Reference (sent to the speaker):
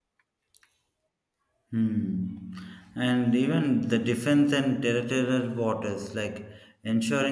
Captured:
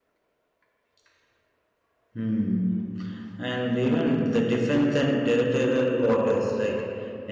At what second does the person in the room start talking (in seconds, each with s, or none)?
none